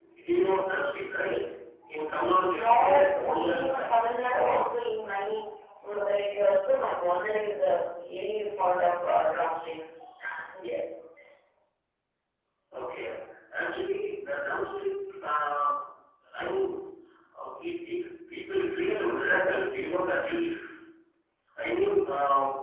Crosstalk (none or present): present